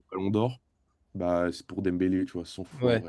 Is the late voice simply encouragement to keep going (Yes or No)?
No